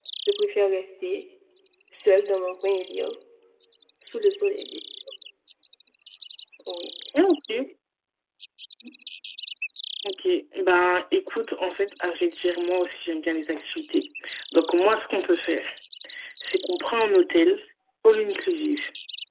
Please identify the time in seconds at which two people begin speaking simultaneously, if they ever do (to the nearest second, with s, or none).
none